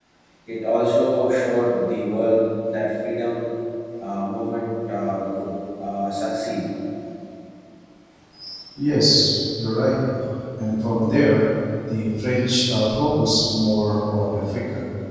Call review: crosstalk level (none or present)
none